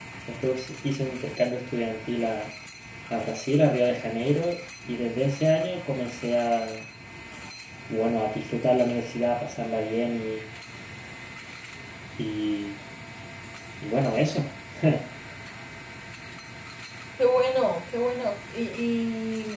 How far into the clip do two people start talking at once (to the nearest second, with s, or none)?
none